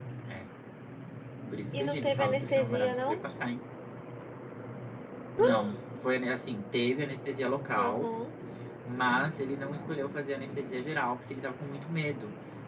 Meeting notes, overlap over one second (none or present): present